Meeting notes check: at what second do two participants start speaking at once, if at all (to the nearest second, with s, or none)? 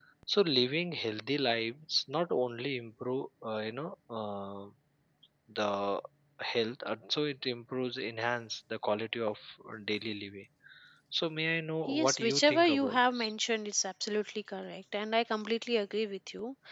12 s